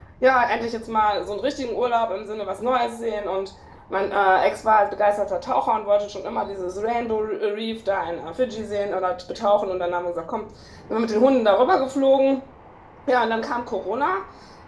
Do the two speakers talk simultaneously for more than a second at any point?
No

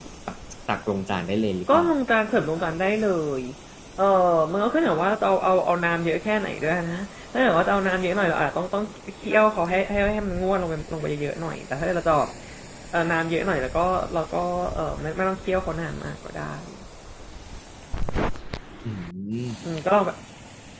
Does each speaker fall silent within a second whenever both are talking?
Yes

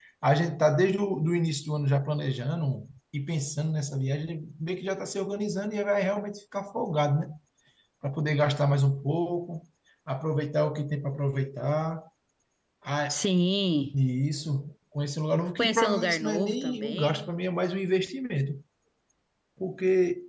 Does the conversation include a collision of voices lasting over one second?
Yes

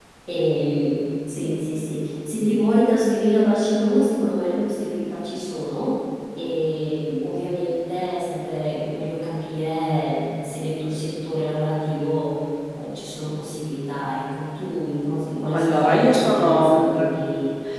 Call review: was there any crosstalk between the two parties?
Yes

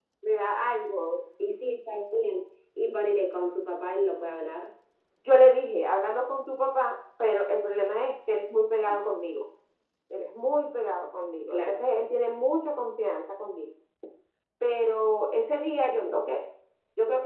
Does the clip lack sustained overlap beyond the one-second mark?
Yes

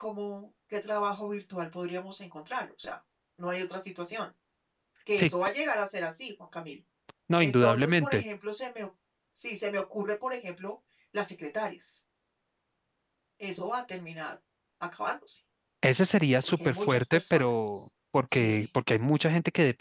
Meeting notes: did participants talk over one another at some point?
Yes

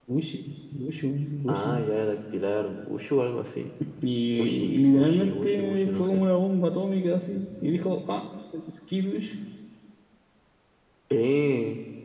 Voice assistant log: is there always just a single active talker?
No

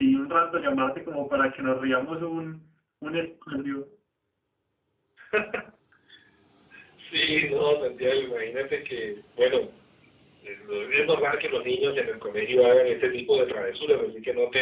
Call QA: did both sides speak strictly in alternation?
Yes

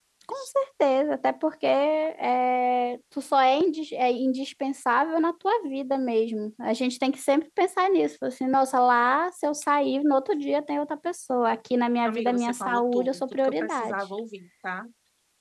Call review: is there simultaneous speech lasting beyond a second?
Yes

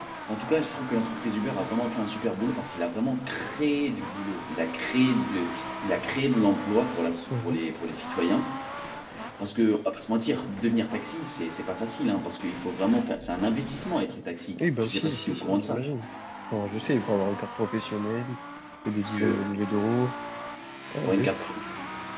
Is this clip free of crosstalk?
No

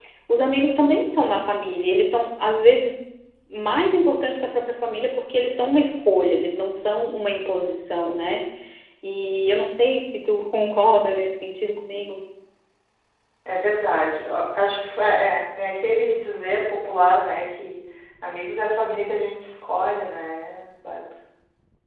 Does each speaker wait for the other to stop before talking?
Yes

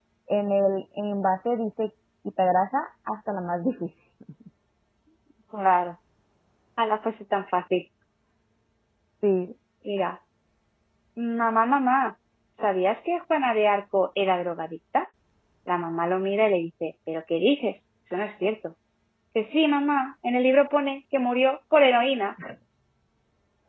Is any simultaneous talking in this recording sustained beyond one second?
No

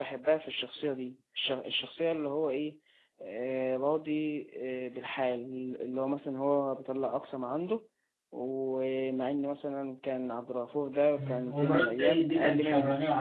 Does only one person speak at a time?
No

